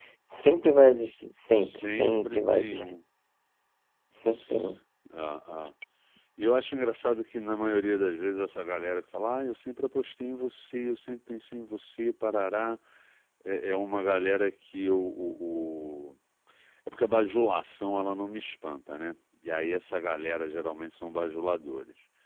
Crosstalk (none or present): present